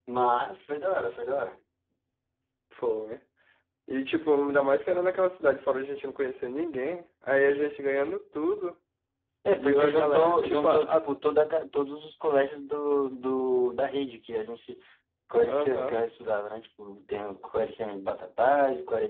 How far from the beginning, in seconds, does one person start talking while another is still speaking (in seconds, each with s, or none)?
9.5 s